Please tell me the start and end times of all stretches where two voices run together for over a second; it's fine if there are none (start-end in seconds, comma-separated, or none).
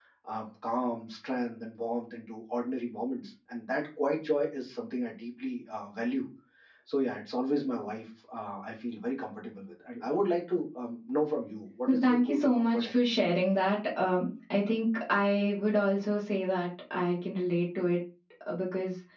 11.9-13.2